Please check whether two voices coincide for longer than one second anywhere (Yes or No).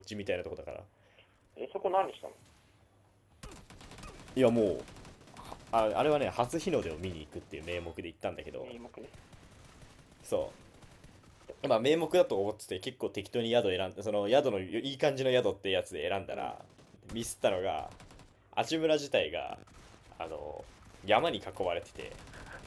No